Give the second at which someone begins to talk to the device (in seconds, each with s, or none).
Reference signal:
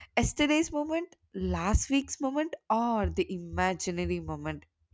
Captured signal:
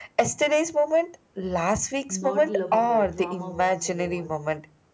2.1 s